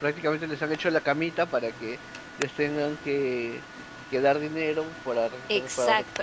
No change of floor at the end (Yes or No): No